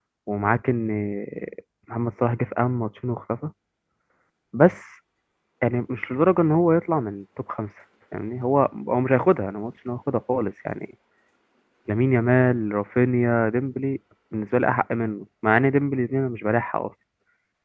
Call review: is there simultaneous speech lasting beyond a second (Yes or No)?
No